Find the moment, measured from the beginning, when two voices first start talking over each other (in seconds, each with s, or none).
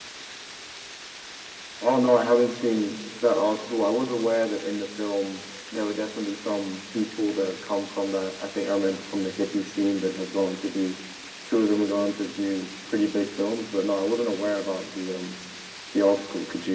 none